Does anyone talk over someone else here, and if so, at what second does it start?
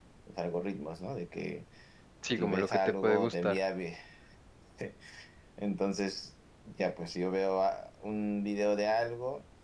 2 s

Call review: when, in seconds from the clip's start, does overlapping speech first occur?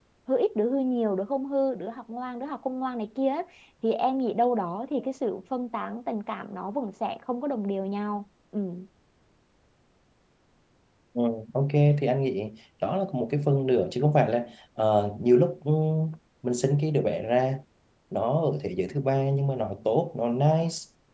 none

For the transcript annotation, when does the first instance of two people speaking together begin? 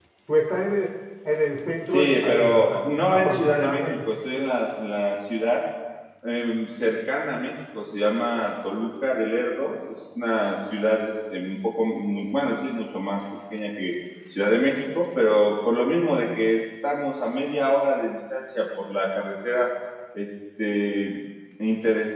2 s

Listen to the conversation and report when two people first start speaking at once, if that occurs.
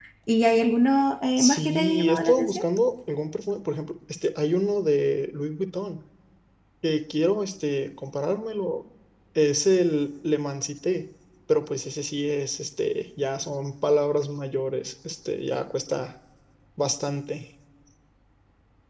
1 s

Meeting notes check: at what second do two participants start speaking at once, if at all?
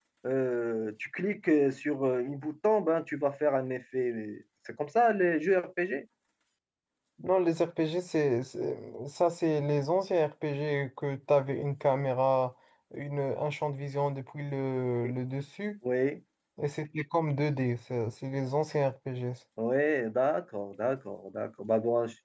none

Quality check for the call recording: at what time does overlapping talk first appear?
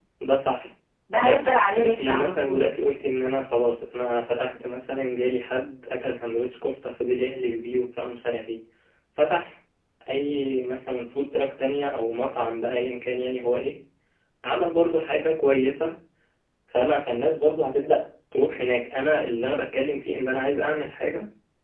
1 s

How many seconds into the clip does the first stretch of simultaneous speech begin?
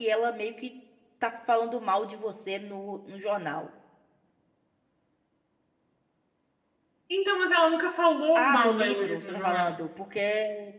8 s

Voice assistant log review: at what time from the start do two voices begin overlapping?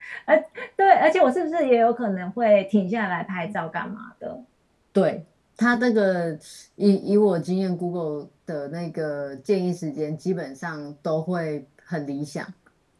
none

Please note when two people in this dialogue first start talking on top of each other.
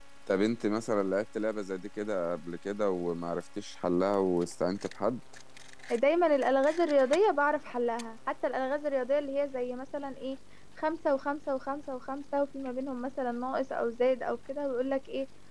none

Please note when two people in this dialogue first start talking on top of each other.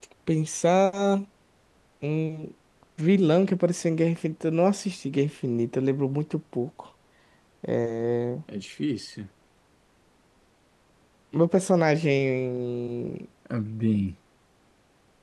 none

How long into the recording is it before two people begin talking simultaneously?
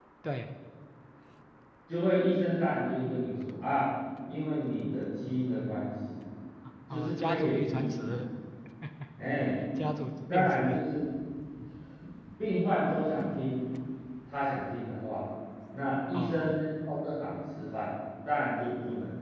7 s

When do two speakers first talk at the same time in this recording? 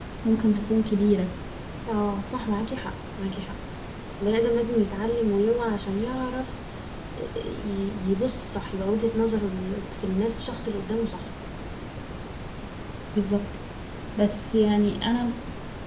none

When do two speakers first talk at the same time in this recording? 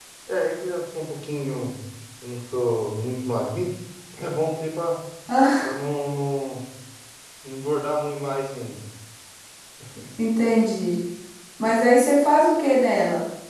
none

